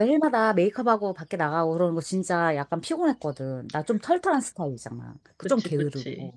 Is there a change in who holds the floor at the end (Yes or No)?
Yes